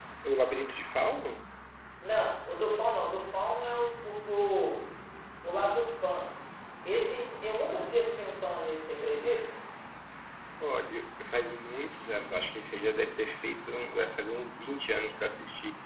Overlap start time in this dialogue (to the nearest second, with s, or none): none